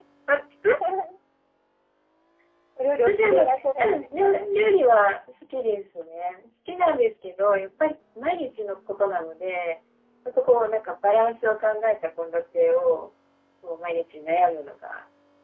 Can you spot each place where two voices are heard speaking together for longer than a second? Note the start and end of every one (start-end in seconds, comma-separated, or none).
3.1-4.5